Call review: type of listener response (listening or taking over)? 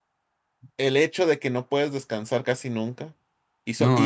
listening